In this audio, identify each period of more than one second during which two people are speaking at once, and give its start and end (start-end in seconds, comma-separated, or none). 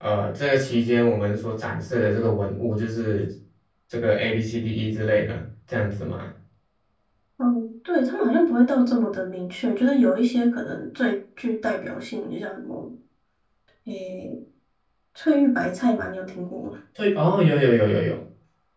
none